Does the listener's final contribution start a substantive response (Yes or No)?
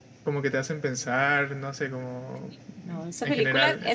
Yes